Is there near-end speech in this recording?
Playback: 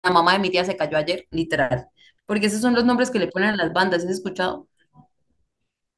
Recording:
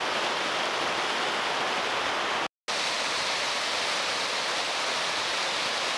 No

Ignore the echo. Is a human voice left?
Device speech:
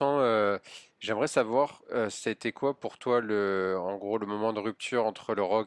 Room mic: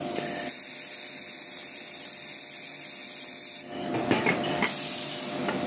No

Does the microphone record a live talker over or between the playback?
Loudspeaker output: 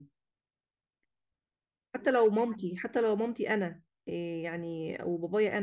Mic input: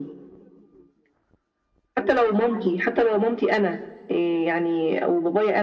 No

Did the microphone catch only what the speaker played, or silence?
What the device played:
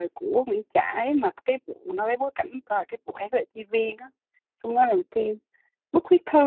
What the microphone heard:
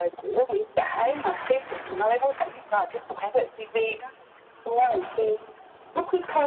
Yes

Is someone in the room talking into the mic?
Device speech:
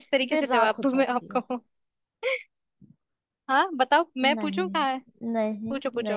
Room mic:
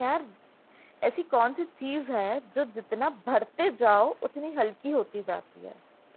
Yes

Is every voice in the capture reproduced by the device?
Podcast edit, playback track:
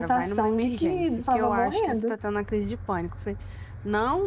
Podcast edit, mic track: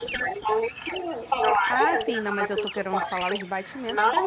No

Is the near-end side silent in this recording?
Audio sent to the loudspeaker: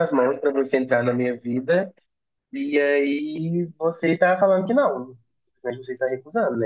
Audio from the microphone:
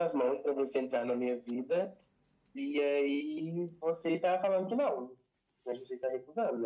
Yes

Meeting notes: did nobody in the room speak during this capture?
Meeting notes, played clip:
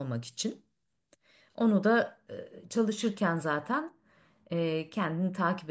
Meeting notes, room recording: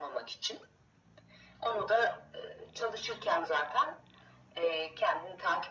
Yes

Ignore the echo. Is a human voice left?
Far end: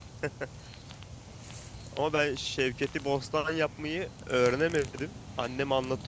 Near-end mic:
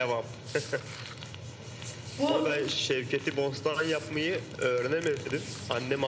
Yes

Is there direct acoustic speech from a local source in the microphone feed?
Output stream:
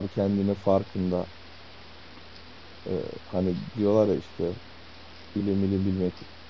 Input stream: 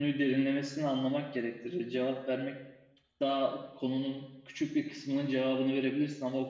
Yes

